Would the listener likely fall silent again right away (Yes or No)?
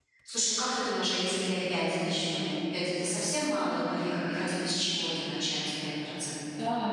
No